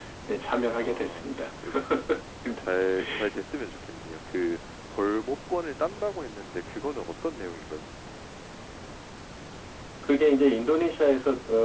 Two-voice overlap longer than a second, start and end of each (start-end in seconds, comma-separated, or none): none